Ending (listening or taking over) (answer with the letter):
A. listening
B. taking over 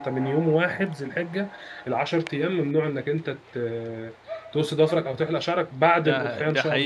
B